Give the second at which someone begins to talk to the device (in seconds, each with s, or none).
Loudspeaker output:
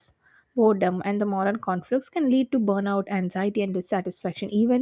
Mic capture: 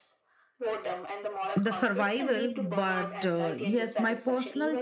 1.5 s